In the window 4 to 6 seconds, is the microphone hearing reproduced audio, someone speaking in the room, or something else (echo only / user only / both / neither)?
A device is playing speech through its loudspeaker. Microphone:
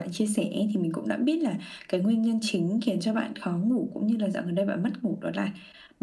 echo only